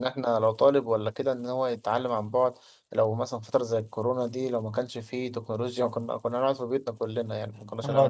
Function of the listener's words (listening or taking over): taking over